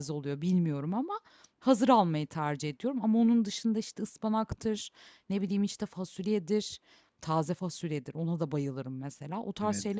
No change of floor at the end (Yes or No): Yes